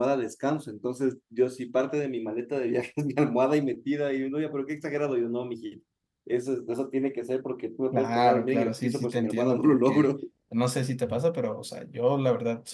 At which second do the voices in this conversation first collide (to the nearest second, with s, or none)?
8 s